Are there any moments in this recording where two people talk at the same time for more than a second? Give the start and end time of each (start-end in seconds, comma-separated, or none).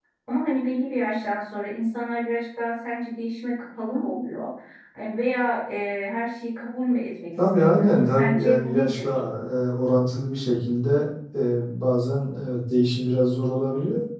7.6-9.0